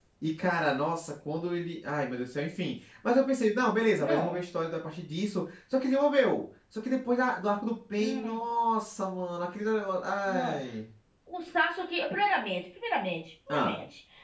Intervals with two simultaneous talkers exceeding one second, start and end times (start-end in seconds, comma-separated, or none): none